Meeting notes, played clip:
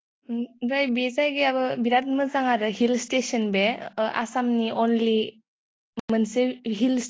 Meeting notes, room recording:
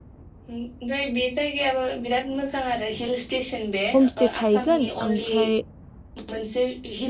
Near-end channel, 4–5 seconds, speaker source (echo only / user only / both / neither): both